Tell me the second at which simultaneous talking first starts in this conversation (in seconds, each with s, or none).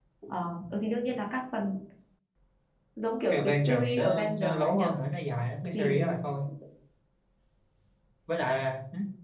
3.3 s